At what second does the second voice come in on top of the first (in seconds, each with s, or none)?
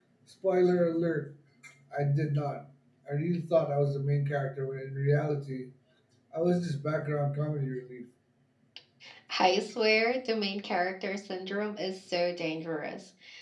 none